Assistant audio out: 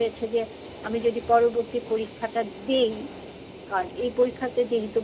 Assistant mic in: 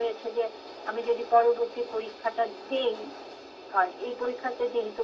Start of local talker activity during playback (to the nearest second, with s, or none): none